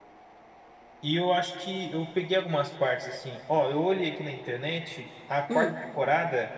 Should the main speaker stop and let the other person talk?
No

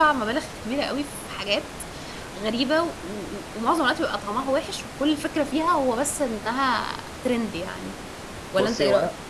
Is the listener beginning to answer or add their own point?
Yes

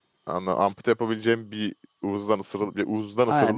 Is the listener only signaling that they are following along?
No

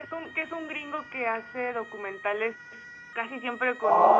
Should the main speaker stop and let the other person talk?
Yes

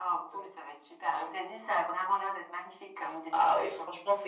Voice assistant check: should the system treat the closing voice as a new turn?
Yes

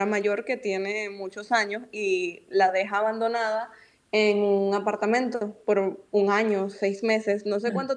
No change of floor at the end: Yes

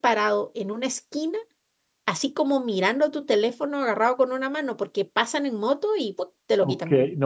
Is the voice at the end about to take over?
Yes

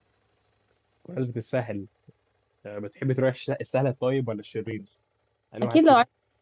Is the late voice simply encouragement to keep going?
No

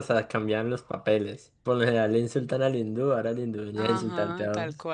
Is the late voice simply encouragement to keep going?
No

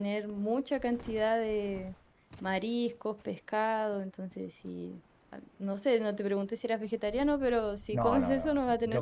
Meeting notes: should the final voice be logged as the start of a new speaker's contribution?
Yes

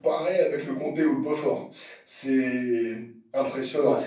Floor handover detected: No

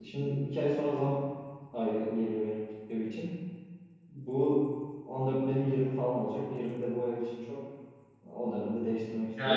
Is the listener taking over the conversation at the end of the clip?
Yes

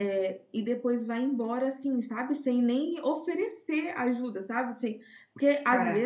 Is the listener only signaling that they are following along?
Yes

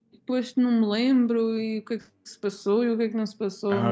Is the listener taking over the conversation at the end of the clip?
Yes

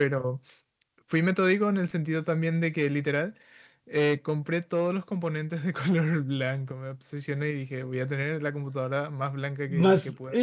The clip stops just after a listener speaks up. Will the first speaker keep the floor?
No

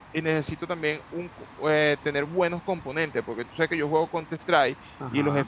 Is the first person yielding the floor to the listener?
No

